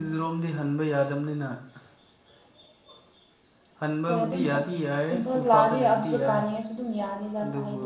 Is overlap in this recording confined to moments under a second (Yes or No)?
No